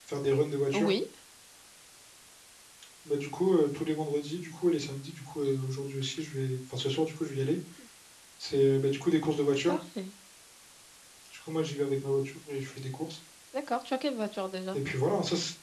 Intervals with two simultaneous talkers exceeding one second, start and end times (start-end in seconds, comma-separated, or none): none